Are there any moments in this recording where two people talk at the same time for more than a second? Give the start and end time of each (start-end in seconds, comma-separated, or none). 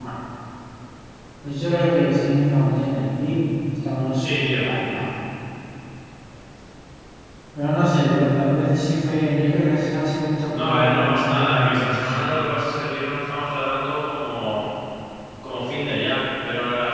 10.6-12.1